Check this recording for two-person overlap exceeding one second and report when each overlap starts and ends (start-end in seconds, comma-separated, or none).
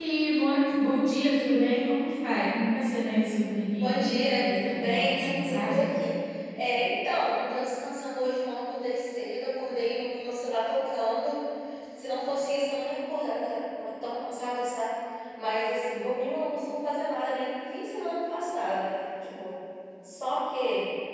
3.8-5.8